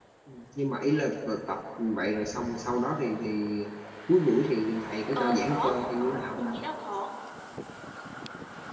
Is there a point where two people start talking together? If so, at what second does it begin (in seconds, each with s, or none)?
5.1 s